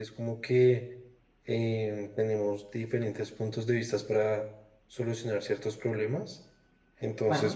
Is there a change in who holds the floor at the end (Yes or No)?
No